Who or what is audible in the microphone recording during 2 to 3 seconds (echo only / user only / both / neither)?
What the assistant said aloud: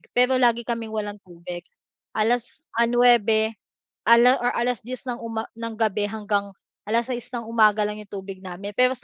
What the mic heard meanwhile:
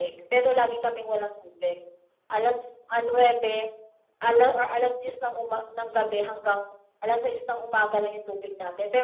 echo only